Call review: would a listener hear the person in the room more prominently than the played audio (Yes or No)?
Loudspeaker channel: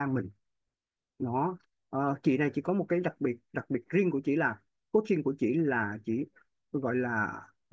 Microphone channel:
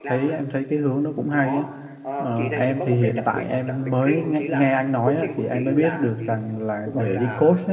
Yes